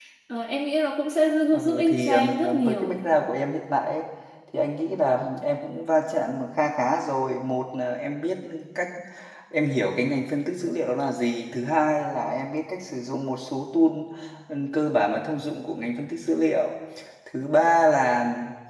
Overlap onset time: 2 s

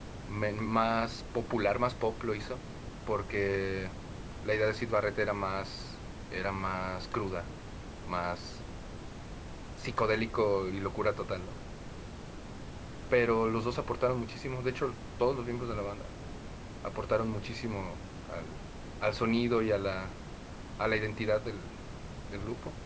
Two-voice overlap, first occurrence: none

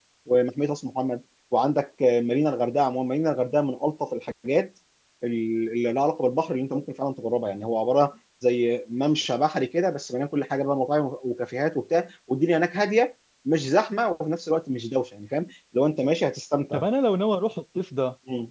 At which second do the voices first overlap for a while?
none

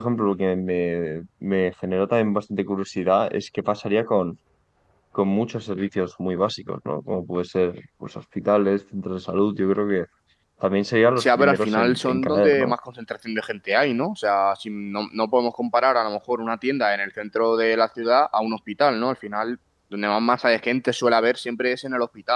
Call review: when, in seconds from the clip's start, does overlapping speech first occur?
11 s

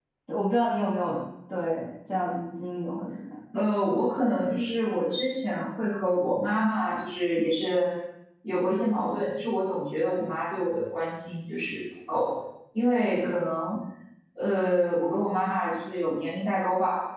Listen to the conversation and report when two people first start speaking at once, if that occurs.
none

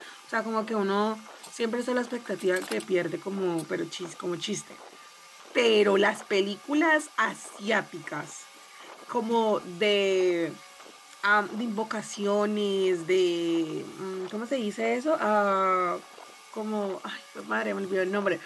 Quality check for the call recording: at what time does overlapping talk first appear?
none

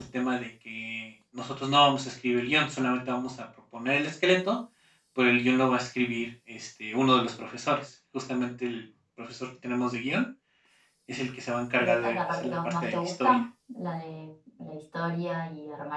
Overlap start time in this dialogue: 12 s

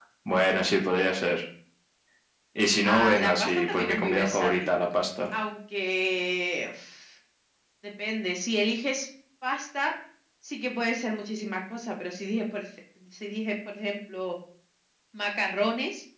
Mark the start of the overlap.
3 s

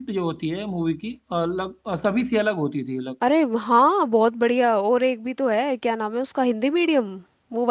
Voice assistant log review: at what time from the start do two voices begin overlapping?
none

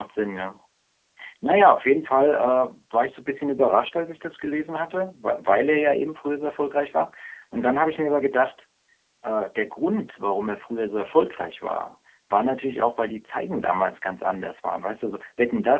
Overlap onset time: none

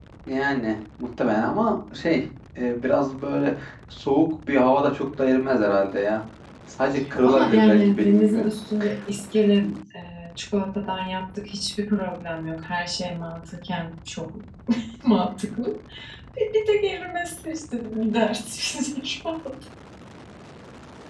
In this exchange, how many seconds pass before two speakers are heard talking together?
7 s

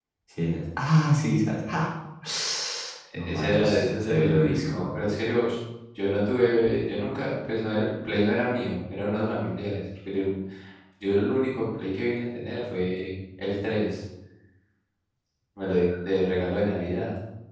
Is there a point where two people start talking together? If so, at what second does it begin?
3 s

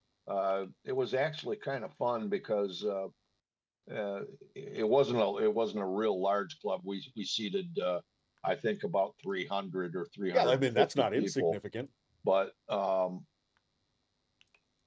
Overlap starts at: 10 s

